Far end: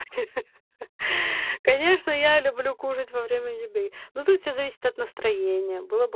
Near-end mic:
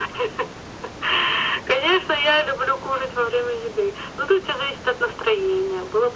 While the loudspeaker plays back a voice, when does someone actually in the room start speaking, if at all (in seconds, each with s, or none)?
none